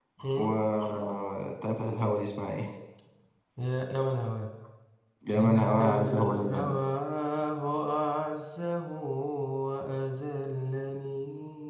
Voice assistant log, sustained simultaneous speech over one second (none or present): present